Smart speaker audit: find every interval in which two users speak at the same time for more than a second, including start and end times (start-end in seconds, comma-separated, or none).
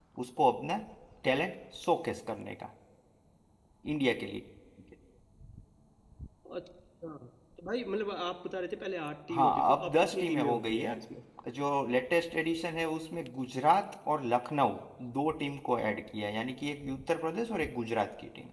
9.3-10.9